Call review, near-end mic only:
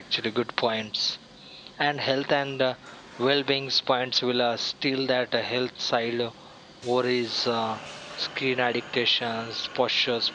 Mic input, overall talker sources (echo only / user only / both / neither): user only